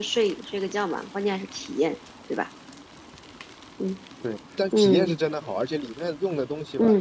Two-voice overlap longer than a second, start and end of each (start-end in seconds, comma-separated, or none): none